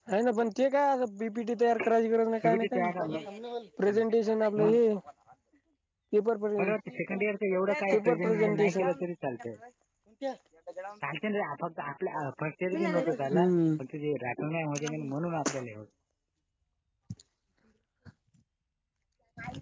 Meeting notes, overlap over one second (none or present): present